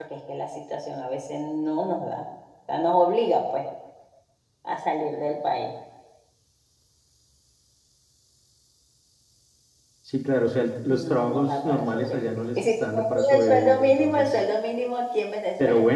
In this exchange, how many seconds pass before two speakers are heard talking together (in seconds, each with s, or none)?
10.9 s